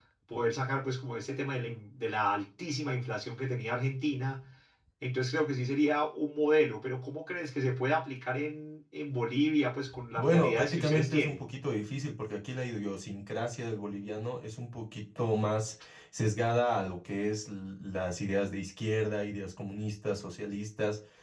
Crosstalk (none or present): present